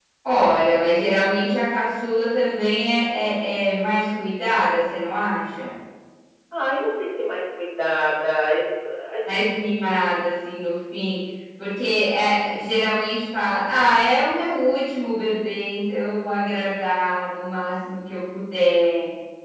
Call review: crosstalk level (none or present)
none